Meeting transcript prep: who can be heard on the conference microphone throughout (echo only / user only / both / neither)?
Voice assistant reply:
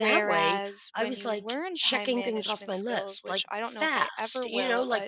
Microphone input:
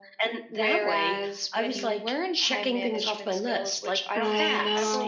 both